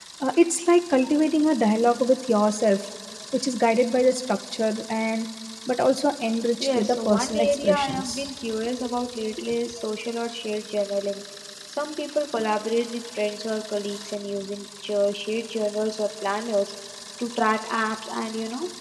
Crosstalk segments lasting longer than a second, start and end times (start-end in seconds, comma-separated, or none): 6.6-8.1